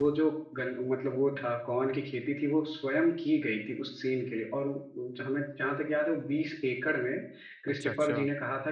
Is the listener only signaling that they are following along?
Yes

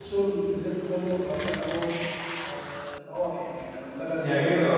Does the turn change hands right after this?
Yes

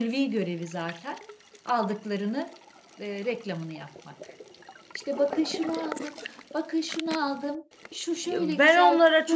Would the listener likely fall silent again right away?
No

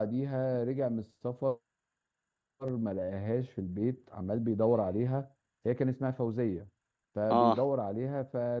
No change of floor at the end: Yes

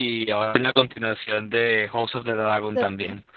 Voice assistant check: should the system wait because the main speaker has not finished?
No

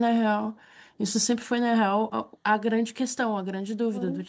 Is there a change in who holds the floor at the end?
No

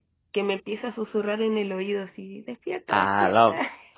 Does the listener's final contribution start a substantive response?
Yes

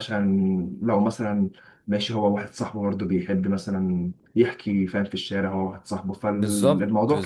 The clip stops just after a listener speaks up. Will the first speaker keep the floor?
No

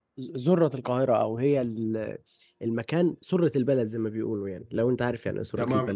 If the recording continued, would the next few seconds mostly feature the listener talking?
Yes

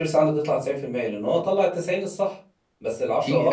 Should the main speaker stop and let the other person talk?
No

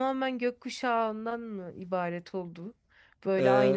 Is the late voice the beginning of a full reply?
No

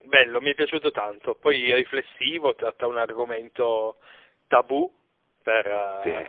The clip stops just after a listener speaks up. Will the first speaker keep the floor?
Yes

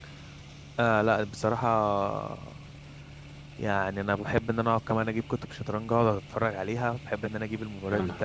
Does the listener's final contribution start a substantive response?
No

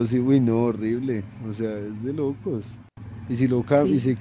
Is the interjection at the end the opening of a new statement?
No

